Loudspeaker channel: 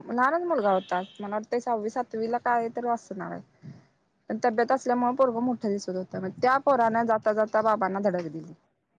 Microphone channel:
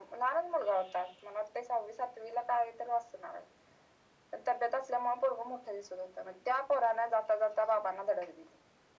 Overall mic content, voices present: echo only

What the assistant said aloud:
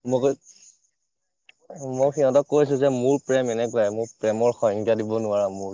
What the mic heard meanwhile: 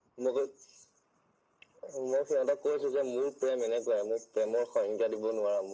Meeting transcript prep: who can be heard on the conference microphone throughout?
echo only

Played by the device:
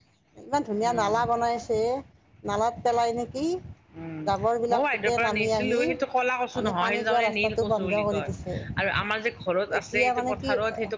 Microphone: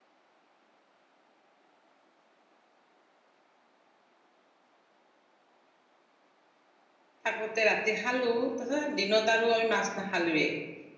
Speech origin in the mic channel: user only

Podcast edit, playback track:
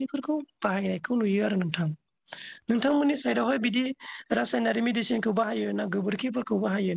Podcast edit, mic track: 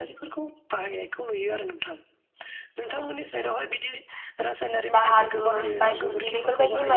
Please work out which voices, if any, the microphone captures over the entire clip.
both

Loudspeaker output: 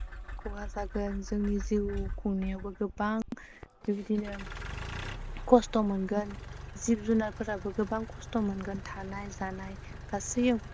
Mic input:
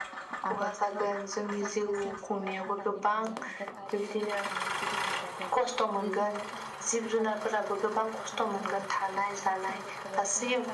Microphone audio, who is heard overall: both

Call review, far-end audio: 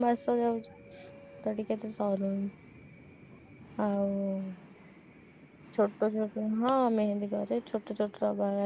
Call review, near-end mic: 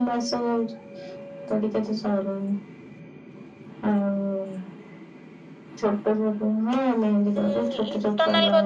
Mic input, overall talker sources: both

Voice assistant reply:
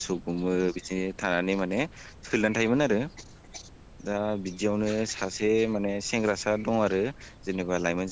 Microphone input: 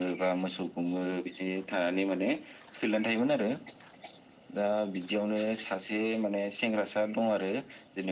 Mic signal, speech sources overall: echo only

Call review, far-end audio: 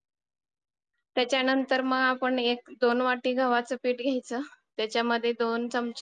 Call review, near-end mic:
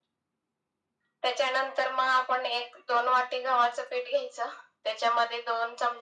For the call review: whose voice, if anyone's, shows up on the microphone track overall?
echo only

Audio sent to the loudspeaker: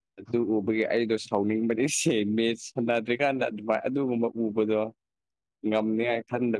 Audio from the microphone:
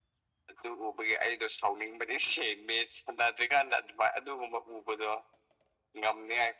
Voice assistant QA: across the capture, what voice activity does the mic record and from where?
echo only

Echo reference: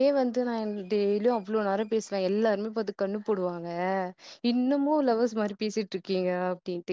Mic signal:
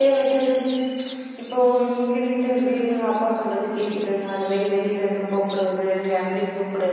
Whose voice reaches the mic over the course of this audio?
user only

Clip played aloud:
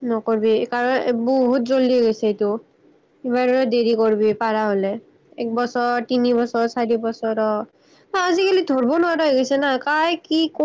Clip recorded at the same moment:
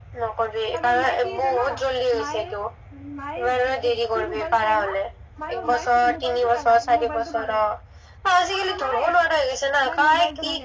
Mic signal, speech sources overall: both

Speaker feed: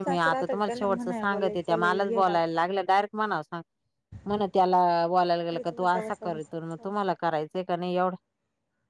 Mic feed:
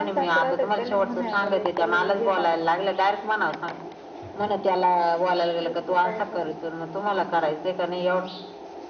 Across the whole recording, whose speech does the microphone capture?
echo only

